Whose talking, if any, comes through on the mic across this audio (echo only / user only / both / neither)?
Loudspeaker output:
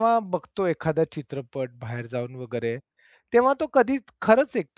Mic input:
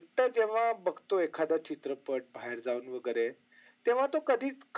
echo only